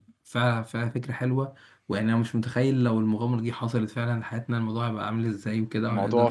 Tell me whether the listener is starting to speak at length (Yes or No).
No